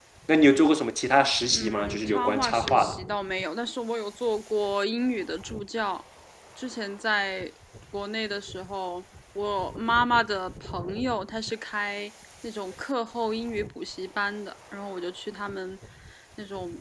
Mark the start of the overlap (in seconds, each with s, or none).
1.5 s